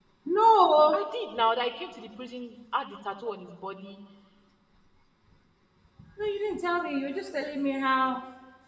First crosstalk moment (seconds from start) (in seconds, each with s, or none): none